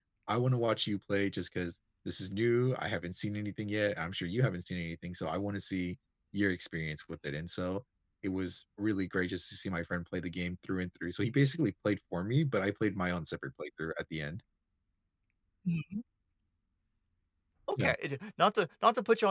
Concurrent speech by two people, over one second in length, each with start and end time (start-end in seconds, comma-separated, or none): none